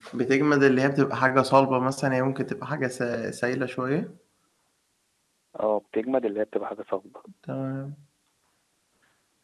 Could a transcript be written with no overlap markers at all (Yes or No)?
Yes